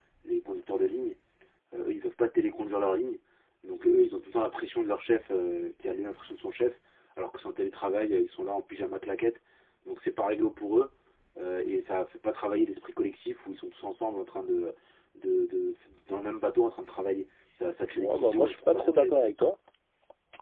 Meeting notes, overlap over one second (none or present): present